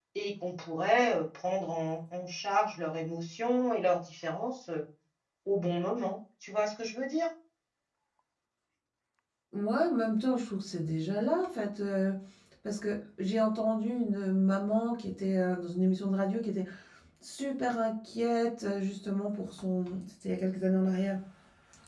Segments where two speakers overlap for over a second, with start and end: none

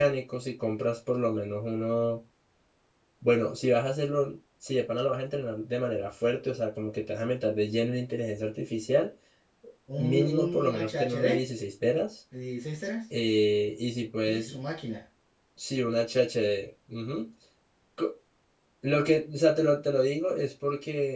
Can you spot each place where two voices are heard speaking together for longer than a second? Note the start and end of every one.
10.0-11.3

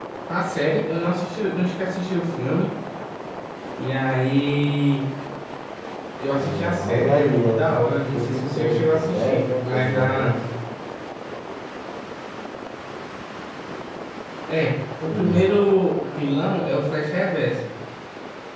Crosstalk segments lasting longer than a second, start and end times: 6.3-10.4

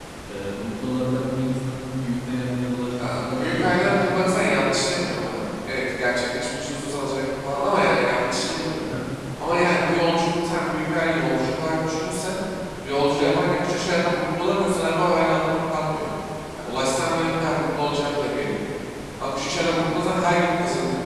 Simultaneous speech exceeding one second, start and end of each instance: 3.0-4.9

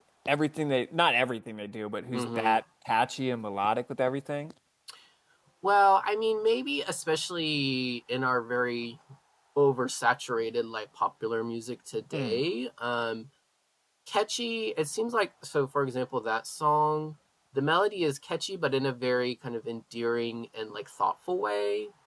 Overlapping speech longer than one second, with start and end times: none

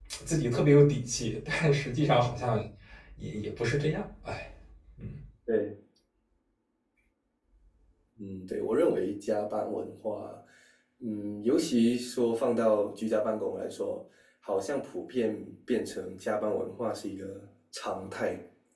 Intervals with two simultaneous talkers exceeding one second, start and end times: none

